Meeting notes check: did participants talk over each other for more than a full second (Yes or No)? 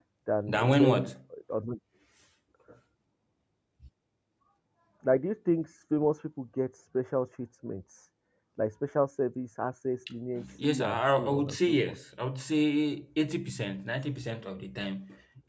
Yes